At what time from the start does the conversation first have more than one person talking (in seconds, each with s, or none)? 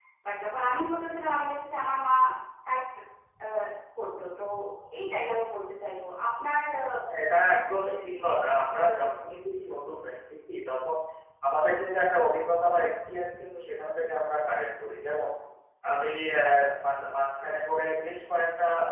7.6 s